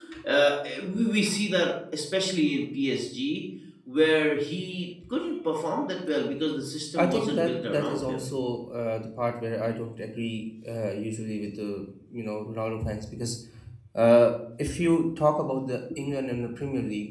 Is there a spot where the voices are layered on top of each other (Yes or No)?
Yes